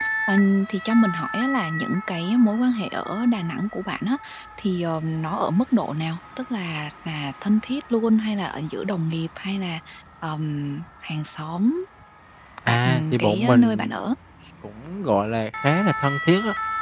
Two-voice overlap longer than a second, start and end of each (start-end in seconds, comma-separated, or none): 12.7-13.9